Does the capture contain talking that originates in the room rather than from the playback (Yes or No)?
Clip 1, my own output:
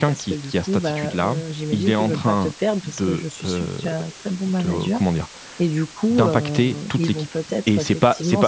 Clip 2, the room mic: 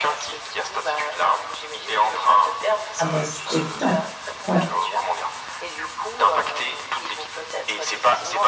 Yes